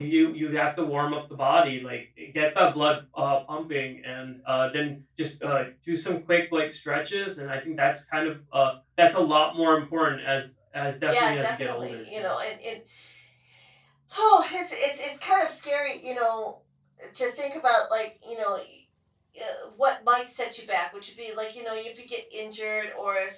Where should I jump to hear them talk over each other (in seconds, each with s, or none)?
11.1 s